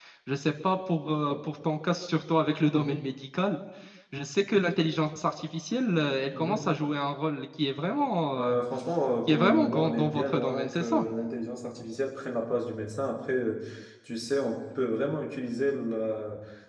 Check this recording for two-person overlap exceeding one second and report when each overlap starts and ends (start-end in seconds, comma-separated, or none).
9.3-11.0